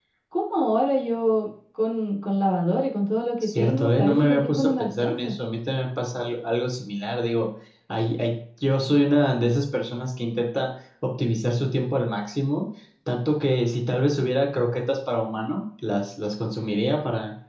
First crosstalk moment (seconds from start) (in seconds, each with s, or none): 3.4 s